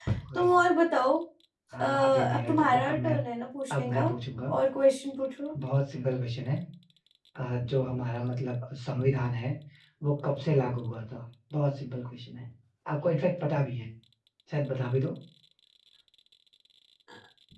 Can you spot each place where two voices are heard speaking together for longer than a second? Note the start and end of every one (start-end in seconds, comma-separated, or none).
1.8-3.1